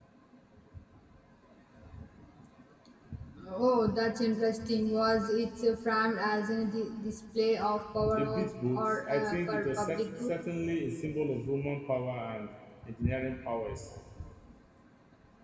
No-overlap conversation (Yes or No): No